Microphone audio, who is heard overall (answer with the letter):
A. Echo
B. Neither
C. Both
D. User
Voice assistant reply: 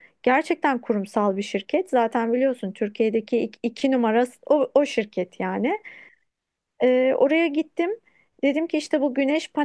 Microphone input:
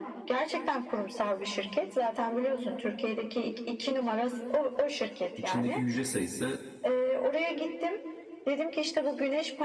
C